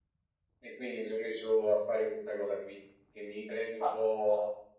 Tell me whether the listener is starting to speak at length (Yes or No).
No